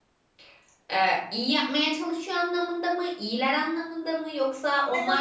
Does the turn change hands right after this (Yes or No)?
Yes